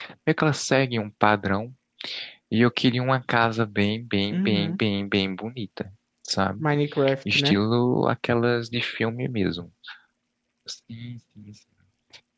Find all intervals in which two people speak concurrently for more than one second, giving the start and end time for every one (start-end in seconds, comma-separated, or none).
none